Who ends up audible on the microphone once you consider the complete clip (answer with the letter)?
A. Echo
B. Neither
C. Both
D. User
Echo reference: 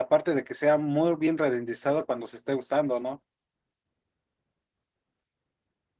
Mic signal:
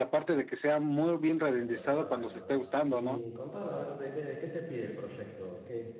C